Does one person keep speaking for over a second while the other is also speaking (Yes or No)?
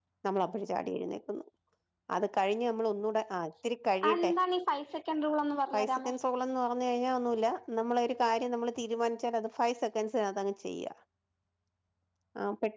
No